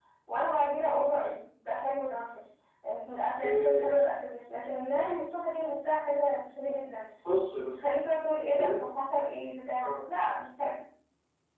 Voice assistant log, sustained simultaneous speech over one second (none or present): none